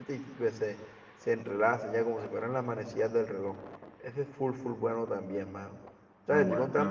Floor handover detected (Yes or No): No